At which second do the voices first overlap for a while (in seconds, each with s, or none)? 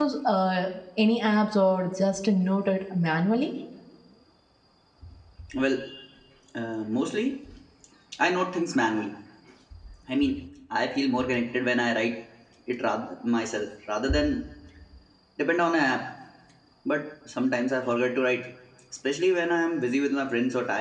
none